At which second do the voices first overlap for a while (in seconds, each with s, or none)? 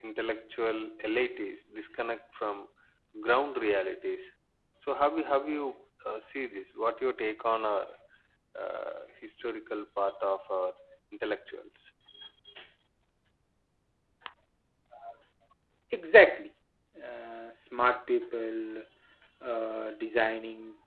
none